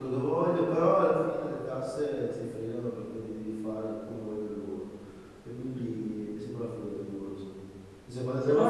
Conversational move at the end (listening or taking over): listening